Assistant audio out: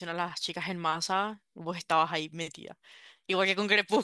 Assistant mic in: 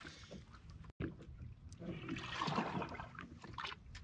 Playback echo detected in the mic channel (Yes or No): No